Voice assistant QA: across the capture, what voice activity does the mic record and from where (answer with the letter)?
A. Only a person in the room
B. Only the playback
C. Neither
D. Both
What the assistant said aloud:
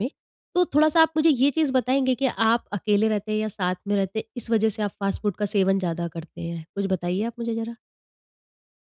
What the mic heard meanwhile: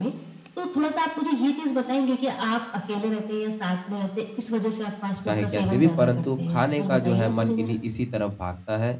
D